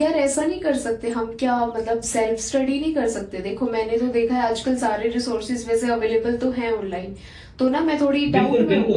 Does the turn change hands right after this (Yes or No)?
Yes